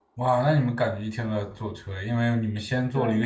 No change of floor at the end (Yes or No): Yes